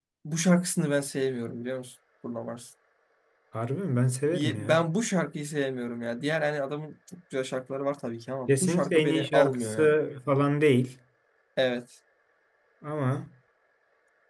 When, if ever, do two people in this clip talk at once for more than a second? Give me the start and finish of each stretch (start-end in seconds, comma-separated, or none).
8.5-9.9